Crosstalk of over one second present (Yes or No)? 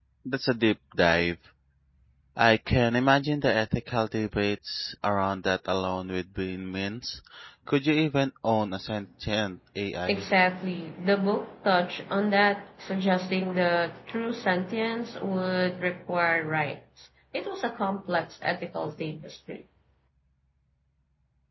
No